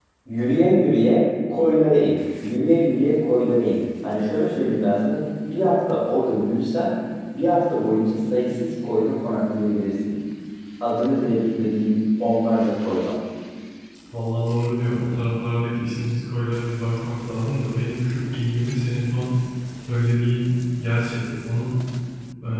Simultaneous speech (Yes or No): No